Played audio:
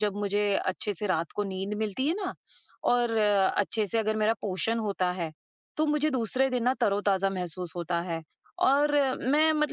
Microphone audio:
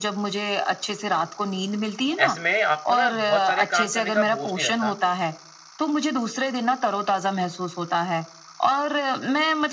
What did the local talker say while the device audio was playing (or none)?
ऐसे में आपको ना बहुत सारे काम करने का बोझ नहीं रहता